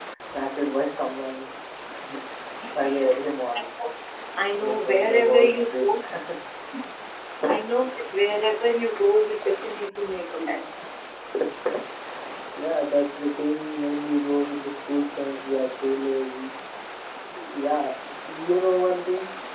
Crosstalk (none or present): present